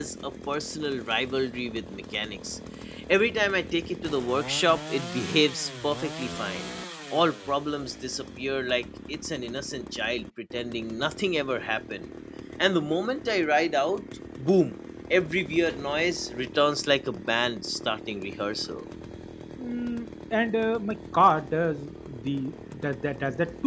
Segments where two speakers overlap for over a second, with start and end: none

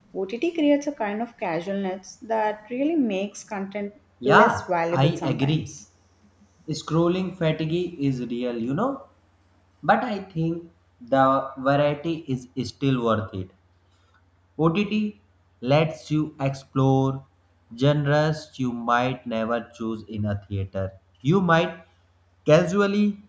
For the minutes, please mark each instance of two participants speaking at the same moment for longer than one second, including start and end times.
4.2-5.7

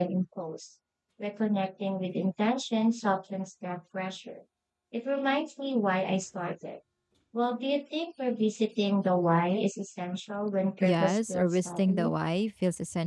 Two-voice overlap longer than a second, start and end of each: 10.8-12.2

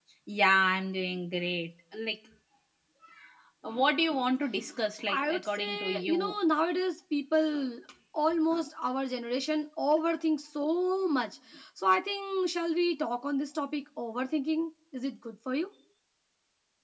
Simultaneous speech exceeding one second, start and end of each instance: 5.1-6.3

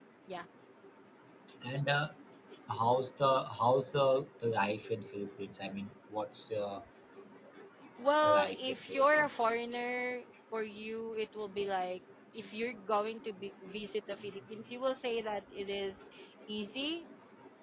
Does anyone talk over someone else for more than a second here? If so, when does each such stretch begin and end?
8.2-9.5

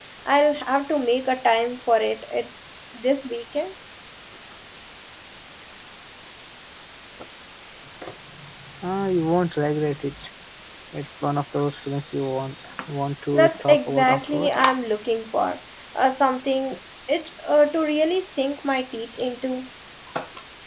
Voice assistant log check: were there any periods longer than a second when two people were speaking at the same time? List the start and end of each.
13.3-14.5

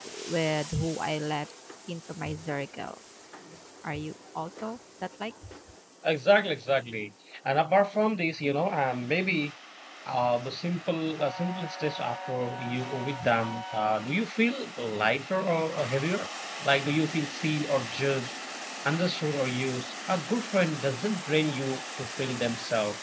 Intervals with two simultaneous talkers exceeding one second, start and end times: none

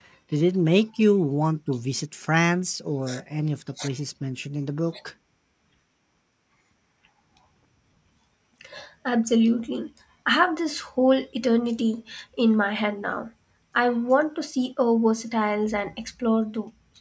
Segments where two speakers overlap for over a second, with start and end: none

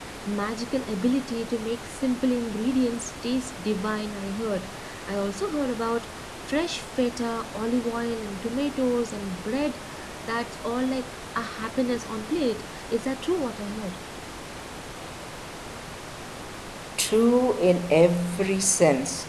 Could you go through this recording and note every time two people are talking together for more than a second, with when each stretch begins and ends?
none

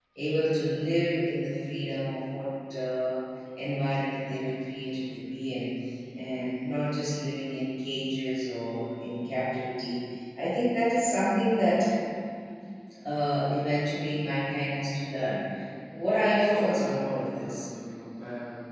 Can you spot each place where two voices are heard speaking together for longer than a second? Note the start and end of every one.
16.4-17.7

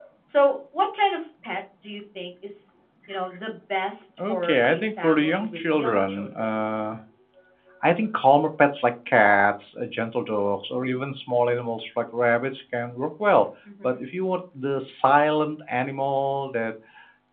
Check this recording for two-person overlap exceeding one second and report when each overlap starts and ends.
4.3-6.5

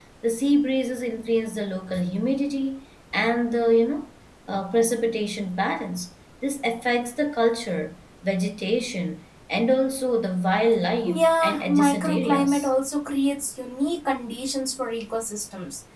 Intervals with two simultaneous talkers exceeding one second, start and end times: 11.1-12.7

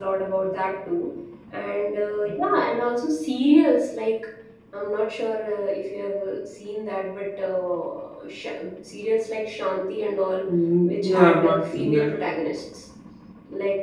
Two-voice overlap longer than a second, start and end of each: 10.8-12.1

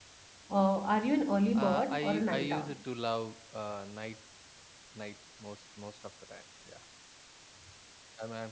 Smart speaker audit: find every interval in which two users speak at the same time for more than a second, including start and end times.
1.6-2.8

